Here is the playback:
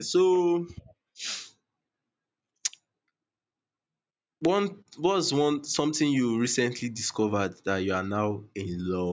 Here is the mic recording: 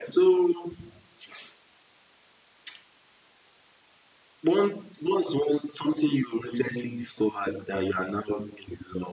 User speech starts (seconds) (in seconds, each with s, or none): none